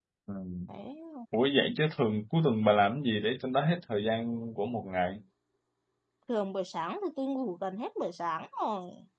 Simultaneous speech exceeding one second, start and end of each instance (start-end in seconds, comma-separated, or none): none